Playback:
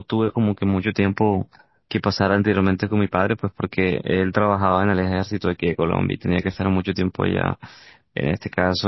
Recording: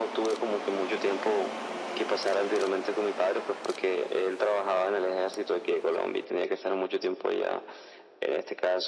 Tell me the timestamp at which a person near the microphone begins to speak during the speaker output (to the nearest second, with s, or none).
none